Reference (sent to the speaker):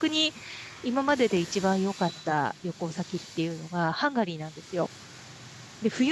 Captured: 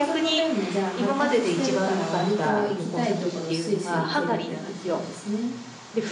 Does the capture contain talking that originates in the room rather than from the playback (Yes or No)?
Yes